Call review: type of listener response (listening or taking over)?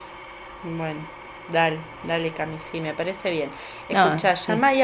listening